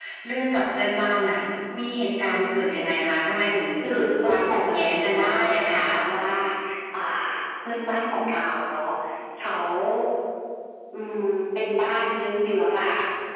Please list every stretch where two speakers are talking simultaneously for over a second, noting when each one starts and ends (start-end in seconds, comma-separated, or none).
3.9-5.9